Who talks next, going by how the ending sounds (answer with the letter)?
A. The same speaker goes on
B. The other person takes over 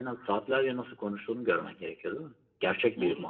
B